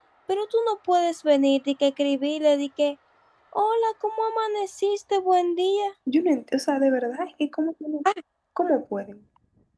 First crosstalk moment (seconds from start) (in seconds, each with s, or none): none